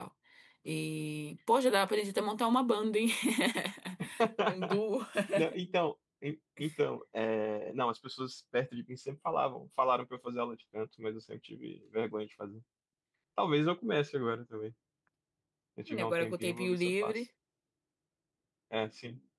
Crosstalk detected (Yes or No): Yes